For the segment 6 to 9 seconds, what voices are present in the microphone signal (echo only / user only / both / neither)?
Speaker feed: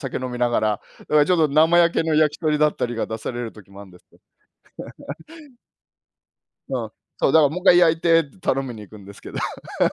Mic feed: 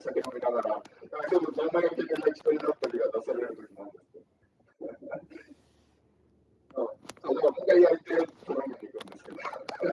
echo only